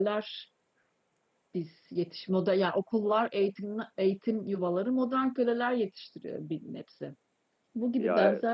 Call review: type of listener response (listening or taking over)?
listening